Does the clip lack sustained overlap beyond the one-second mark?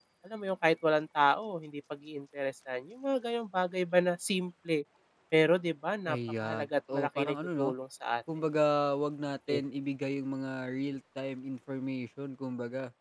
No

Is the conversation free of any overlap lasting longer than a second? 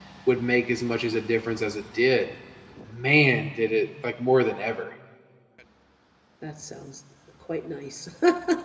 Yes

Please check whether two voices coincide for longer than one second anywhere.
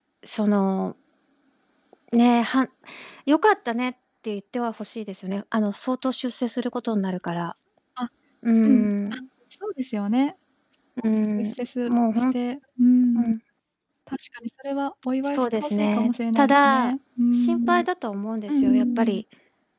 Yes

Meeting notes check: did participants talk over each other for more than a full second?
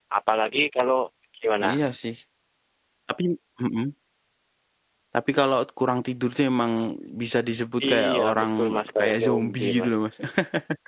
Yes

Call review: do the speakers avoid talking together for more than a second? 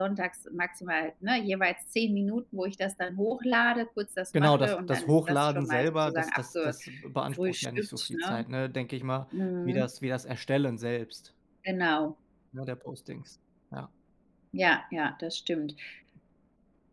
No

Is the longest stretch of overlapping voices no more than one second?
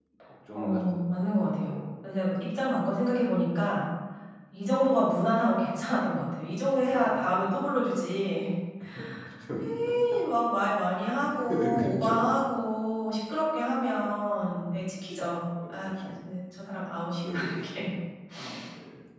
No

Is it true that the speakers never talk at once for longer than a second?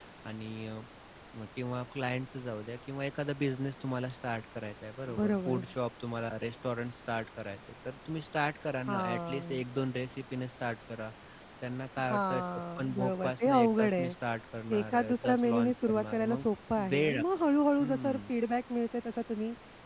No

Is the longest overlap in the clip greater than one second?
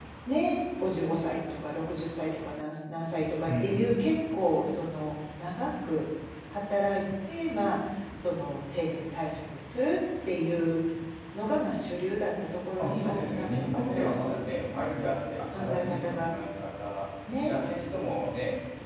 Yes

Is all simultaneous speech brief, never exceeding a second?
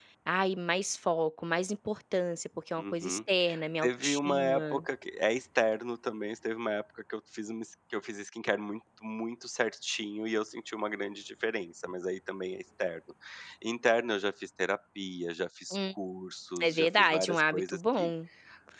No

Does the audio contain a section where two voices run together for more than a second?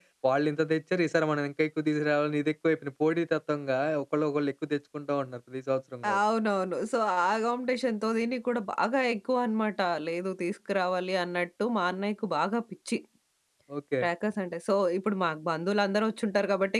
No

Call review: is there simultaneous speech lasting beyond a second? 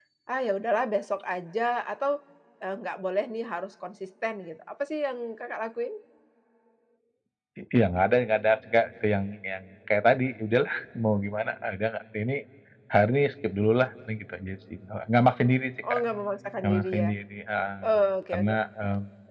No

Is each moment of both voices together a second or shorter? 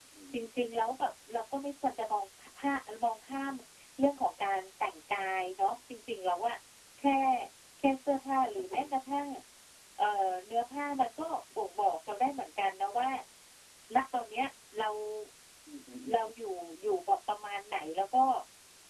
Yes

